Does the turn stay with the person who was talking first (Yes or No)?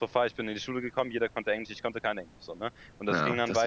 No